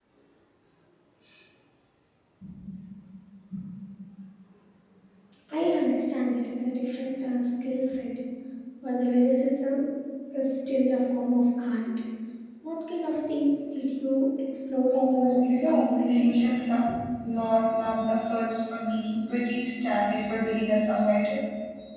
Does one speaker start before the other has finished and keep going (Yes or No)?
Yes